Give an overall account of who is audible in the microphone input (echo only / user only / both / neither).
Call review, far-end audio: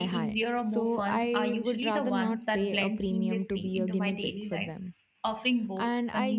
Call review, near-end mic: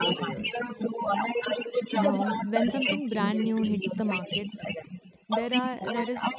both